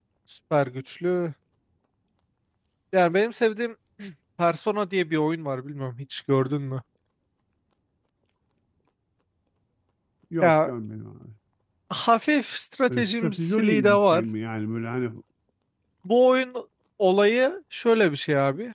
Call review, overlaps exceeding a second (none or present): present